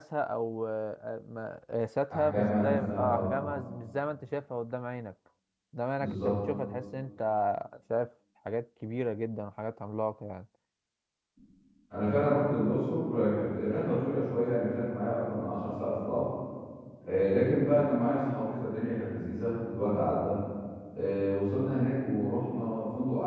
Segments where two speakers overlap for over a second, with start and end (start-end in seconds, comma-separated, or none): 2.1-3.4